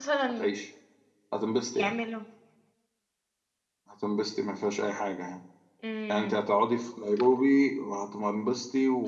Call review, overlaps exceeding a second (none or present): none